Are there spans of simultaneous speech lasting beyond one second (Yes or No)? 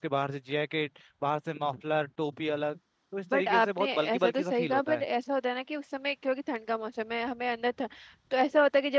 Yes